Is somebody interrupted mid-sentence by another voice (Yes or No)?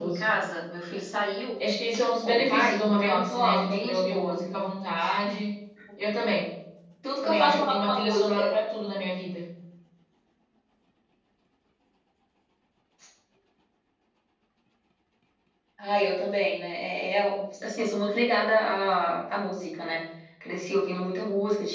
Yes